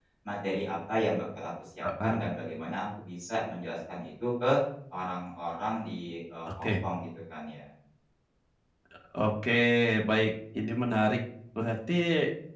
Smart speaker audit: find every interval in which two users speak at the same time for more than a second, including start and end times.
none

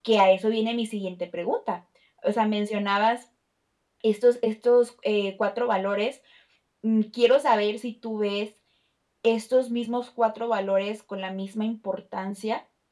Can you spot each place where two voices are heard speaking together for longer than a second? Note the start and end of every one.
none

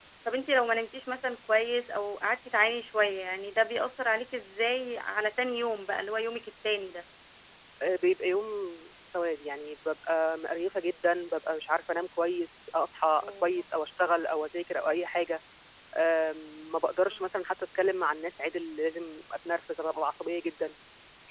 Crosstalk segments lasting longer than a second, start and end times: none

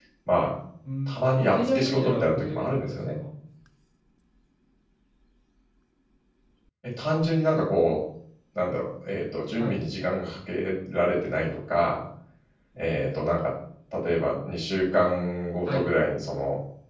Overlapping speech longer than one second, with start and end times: 1.1-3.2

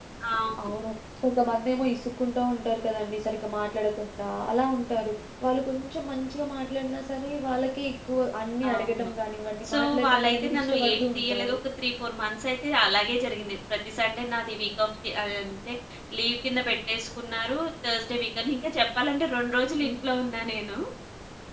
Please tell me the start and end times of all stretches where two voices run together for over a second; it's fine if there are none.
9.7-11.6

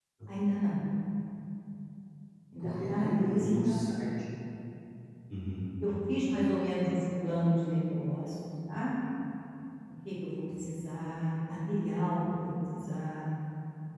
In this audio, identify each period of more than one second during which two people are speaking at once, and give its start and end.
2.6-4.0

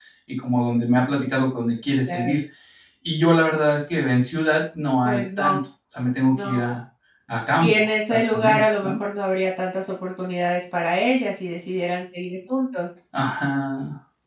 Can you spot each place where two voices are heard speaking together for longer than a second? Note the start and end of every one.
7.6-8.9

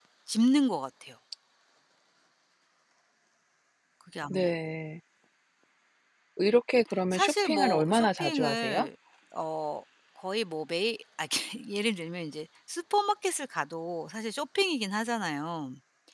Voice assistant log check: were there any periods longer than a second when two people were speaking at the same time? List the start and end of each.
7.1-8.9

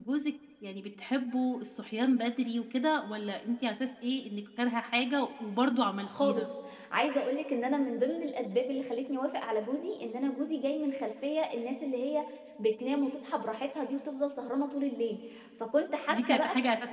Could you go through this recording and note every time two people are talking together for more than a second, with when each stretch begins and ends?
none

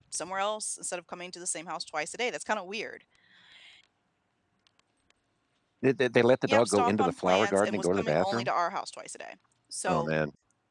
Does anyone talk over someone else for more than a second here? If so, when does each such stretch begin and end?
6.5-8.5

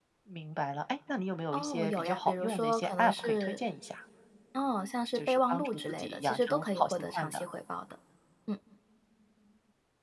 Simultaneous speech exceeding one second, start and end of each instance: 1.5-3.6, 5.2-7.4

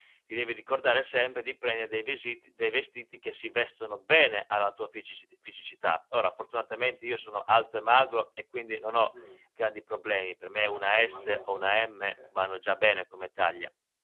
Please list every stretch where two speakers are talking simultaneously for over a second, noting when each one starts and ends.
10.7-12.1

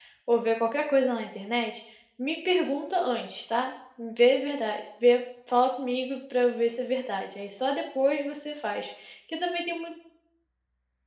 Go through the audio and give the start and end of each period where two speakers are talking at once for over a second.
none

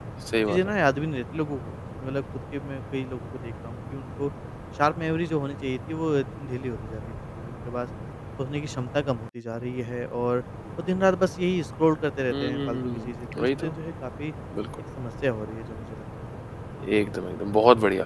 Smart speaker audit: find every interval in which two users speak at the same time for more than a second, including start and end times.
12.3-13.7

